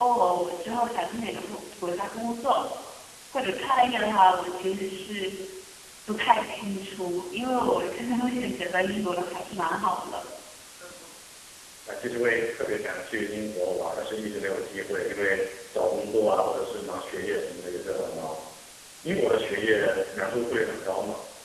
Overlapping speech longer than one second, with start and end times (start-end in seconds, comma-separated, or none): none